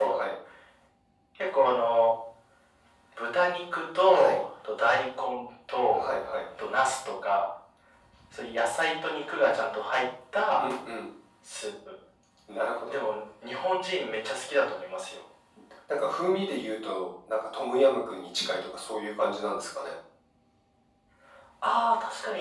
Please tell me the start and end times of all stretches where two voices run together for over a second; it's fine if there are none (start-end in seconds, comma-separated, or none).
none